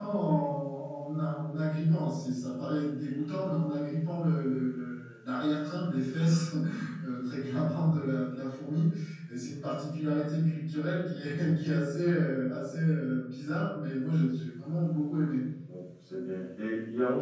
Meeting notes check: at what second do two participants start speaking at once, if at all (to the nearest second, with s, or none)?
none